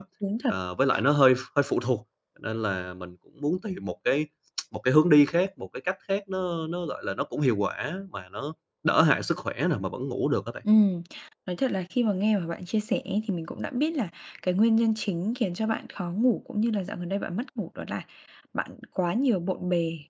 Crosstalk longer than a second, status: none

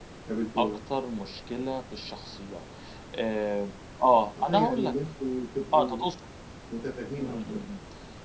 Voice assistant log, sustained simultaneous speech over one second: none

